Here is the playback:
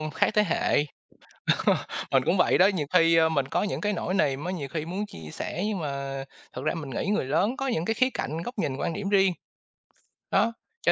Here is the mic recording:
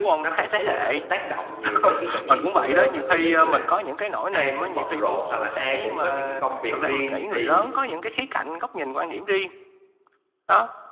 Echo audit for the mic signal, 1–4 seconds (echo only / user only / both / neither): both